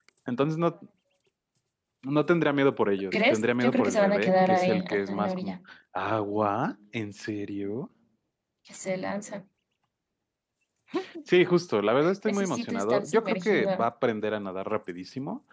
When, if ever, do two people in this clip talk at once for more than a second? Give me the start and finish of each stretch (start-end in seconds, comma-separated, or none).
3.3-5.5, 12.2-13.9